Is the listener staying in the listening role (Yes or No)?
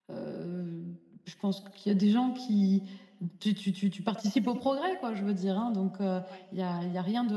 Yes